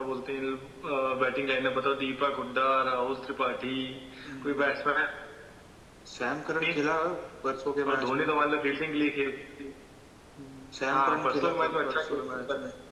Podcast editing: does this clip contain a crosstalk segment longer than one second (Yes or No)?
Yes